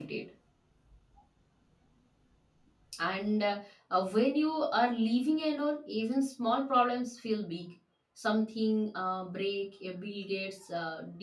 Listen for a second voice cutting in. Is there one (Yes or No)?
No